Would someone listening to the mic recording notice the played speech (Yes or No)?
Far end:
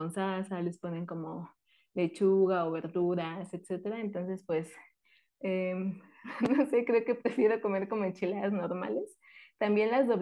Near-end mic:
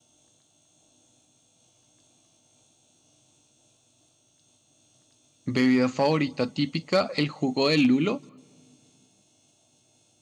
No